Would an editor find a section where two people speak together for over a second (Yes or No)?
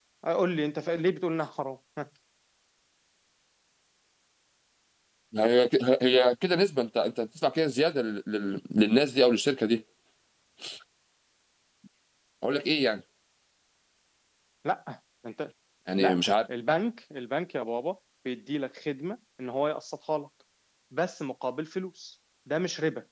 No